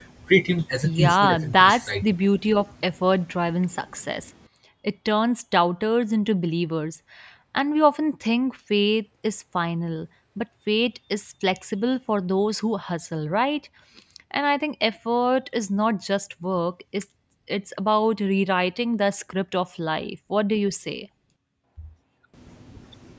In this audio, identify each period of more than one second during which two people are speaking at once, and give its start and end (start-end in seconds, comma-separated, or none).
0.8-2.0